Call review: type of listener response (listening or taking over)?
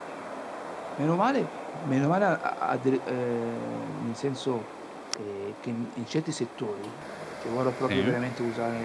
listening